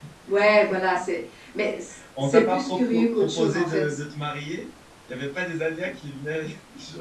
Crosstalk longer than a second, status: present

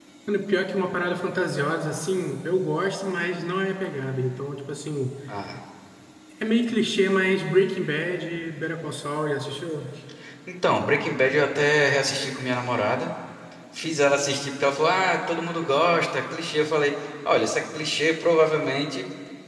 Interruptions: none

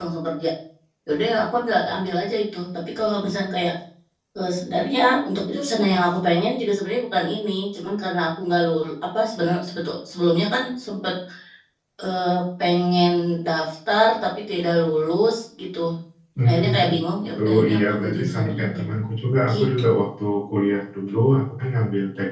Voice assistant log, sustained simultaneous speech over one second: present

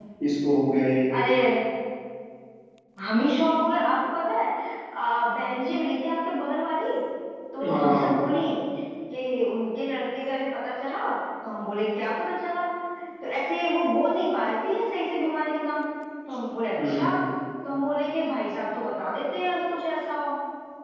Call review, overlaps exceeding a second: none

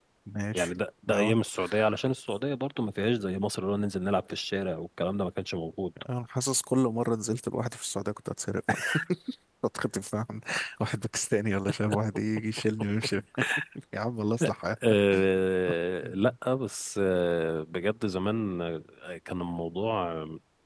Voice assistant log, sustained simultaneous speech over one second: none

